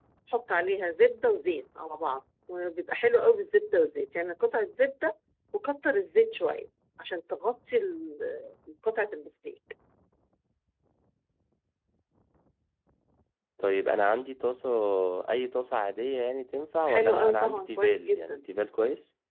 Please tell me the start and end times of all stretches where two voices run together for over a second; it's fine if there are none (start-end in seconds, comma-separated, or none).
16.9-18.4